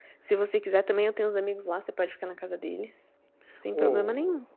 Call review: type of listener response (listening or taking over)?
taking over